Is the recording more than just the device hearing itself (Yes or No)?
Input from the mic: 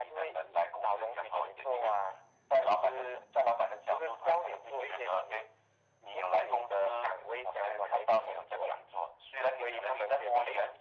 No